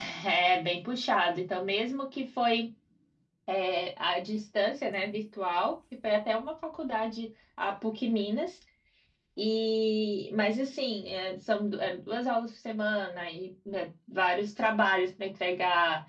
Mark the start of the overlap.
none

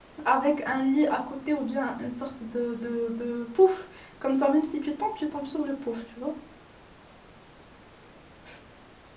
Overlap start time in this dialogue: none

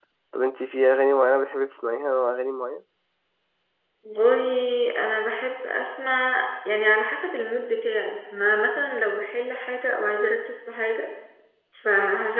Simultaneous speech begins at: none

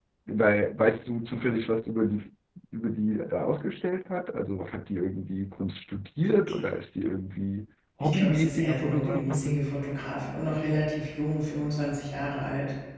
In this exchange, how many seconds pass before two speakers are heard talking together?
8.0 s

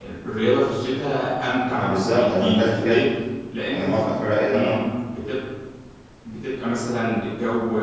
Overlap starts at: 1.8 s

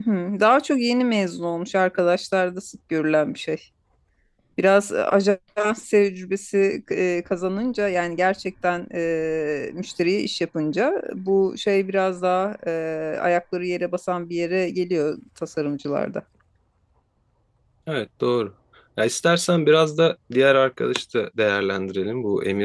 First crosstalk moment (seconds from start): none

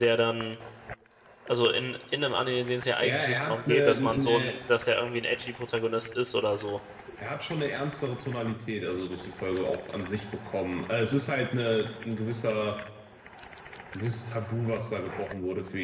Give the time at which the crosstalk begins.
3.0 s

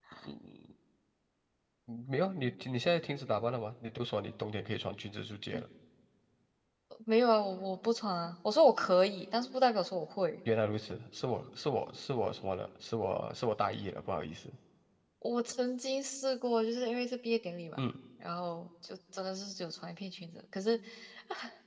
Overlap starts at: none

